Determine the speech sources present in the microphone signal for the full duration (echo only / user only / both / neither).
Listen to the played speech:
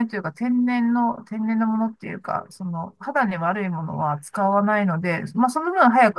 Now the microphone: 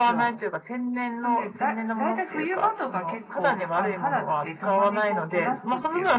both